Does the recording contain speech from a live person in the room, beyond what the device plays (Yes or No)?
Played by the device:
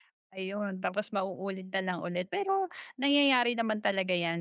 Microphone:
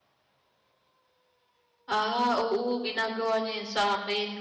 Yes